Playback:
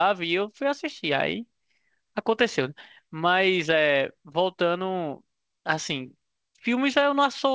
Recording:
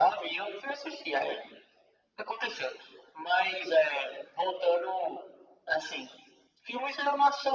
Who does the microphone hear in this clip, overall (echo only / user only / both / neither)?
echo only